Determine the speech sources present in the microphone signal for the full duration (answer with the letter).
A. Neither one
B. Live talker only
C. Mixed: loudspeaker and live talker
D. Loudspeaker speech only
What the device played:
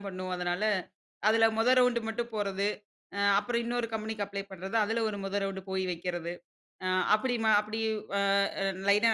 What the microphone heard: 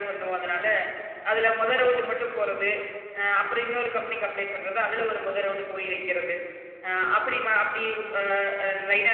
D